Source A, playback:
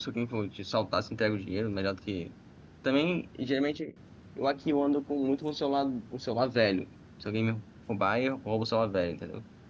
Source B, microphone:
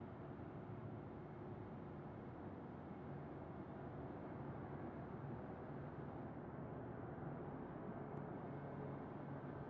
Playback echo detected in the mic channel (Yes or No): No